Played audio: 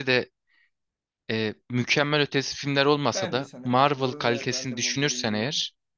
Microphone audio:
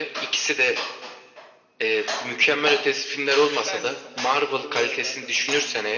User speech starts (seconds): none

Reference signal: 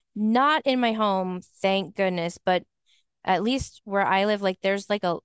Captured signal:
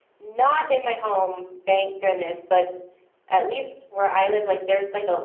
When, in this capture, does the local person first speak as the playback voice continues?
none

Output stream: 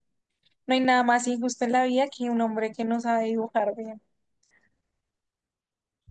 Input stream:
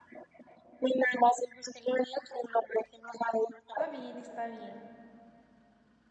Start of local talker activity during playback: 3.7 s

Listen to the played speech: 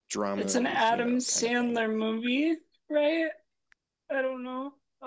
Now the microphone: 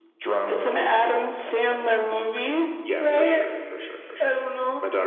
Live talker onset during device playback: 2.8 s

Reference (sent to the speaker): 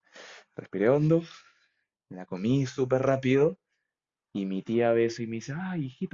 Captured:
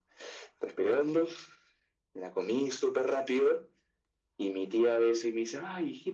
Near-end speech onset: none

